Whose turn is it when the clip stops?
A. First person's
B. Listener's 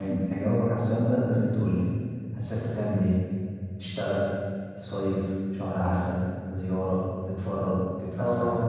B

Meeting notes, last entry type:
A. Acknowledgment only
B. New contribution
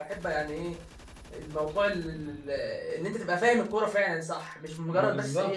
A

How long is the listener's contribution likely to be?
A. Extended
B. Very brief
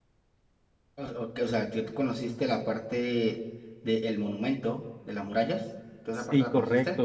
A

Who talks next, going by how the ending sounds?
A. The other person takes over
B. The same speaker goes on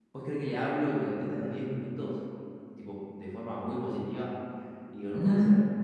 B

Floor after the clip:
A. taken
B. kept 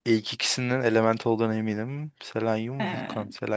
B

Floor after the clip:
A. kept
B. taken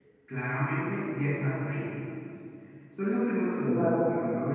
A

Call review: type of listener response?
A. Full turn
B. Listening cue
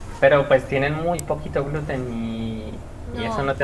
A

